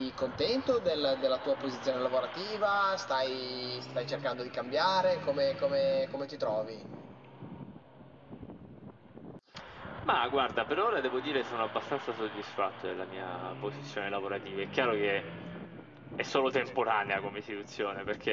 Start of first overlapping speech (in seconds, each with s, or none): none